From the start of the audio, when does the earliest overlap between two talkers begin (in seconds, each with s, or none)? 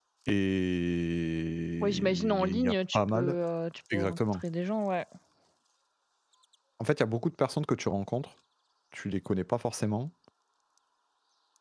1.8 s